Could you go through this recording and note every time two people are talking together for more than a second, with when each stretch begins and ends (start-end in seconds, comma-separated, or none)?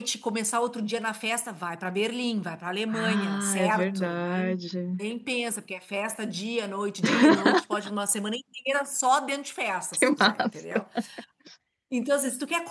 2.9-4.5